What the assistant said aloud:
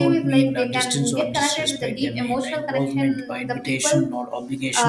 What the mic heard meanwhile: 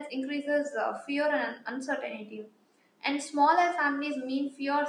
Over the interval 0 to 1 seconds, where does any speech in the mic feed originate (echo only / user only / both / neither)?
user only